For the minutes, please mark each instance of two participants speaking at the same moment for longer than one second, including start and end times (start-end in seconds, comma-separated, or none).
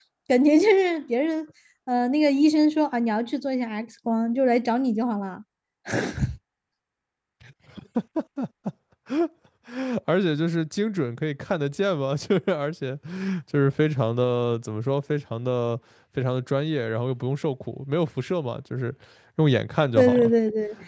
none